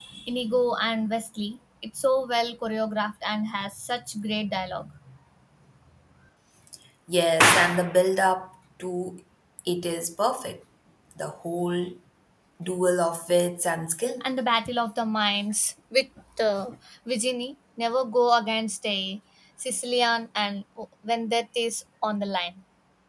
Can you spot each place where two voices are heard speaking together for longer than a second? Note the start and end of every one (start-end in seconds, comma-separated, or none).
none